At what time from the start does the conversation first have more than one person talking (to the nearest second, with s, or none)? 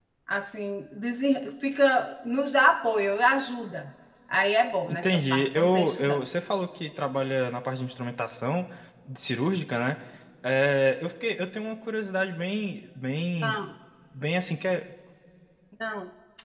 5 s